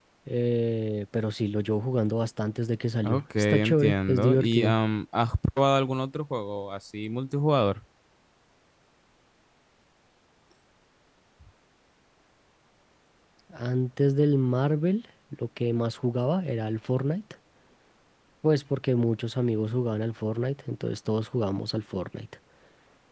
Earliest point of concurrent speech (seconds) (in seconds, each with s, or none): 3.0 s